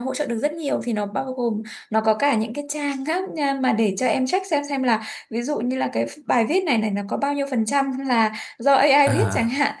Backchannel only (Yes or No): Yes